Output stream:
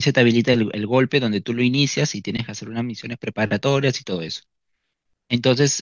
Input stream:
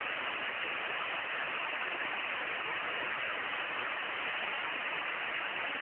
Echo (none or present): none